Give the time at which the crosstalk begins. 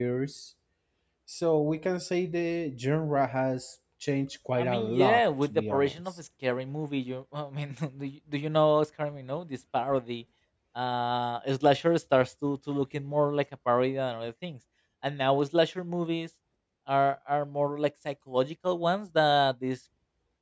4.6 s

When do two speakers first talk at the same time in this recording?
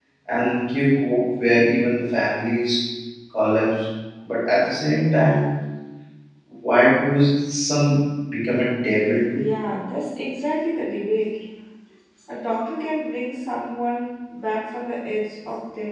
none

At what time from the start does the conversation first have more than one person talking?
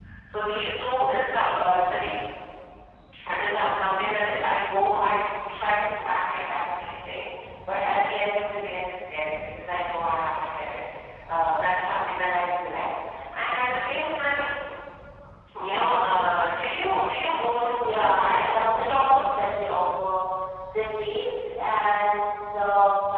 17.8 s

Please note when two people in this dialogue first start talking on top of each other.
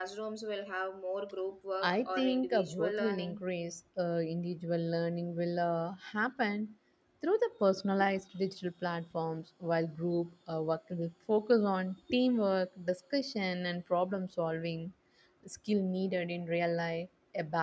1.8 s

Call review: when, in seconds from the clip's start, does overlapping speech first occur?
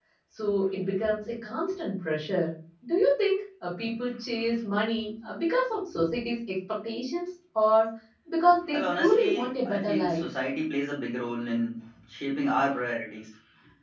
8.7 s

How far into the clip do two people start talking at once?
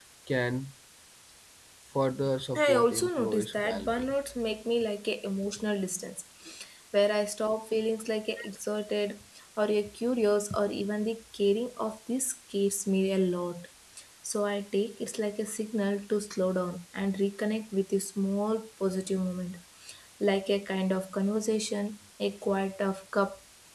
2.5 s

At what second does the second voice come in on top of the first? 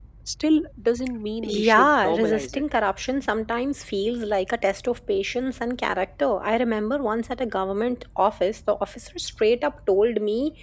1.4 s

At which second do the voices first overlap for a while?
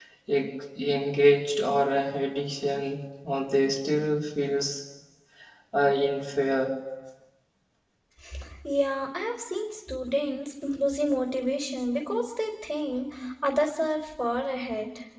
none

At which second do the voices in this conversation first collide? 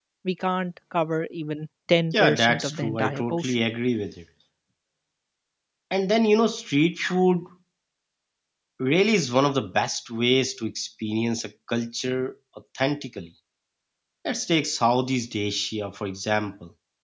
2.1 s

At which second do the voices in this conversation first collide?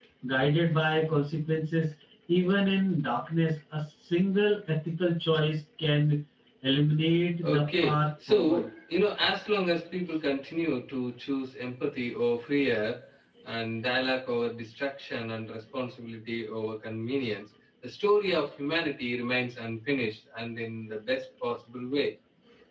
7.4 s

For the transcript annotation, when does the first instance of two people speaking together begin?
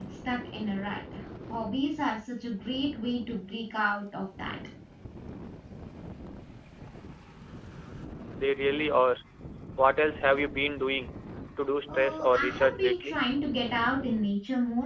11.9 s

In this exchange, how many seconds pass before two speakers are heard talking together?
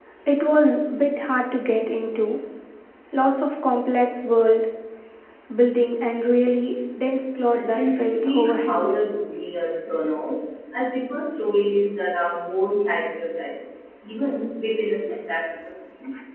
7.6 s

